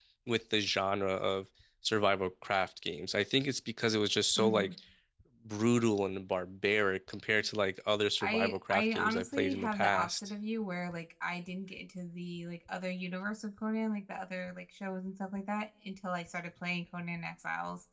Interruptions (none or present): present